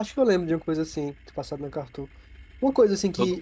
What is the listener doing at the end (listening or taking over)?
listening